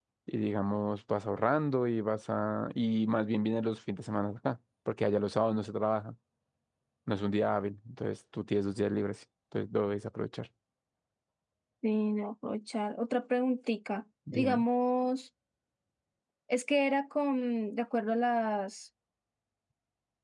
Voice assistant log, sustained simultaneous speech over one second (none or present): none